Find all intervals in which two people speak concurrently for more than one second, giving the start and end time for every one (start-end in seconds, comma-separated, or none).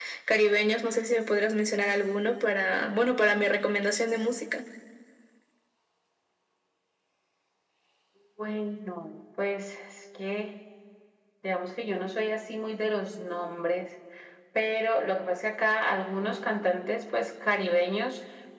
none